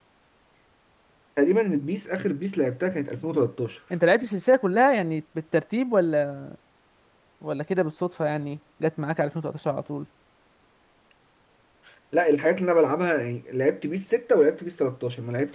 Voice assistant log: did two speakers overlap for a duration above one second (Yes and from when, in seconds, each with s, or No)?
No